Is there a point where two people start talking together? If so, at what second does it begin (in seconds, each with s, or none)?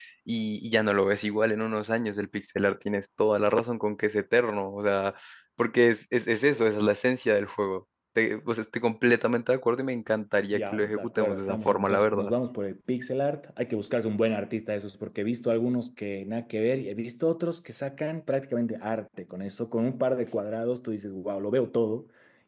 10.5 s